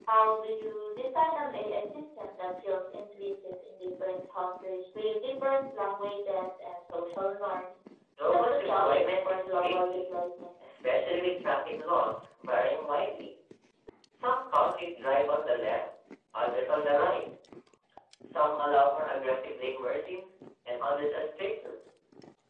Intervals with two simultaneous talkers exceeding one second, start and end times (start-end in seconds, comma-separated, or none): 8.3-10.0